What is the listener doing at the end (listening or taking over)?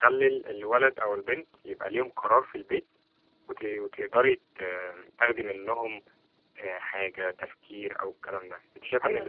listening